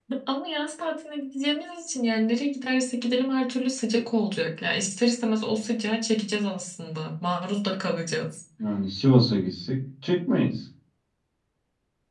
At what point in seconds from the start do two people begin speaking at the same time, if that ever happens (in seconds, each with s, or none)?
none